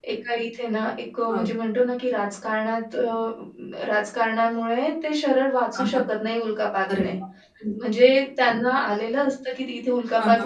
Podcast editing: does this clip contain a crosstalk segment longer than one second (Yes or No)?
No